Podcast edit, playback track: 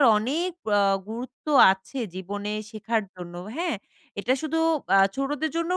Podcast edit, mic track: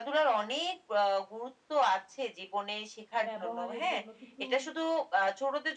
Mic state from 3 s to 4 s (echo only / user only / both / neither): both